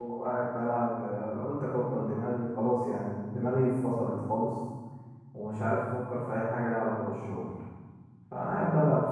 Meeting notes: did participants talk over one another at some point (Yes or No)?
No